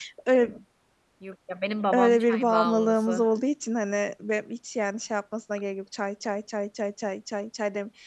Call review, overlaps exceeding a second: present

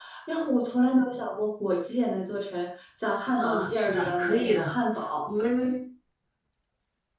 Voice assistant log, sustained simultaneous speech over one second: present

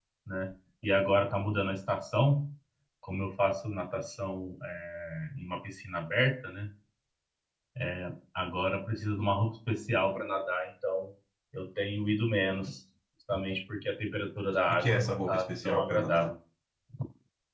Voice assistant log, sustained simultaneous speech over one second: present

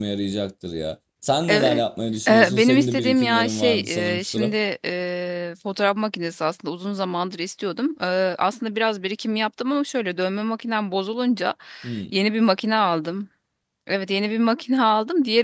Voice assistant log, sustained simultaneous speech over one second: present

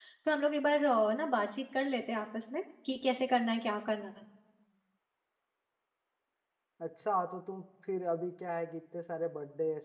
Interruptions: none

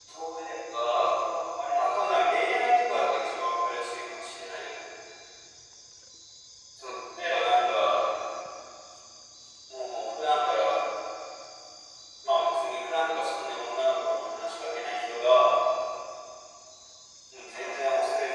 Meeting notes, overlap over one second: none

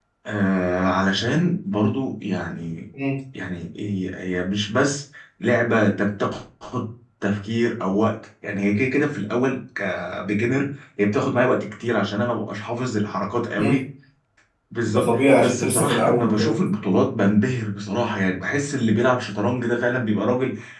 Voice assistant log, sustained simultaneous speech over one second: present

